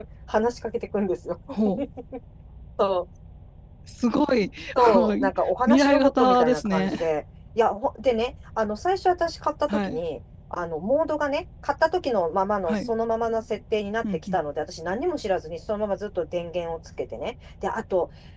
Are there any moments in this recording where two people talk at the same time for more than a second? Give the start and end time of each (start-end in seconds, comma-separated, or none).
5.7-7.1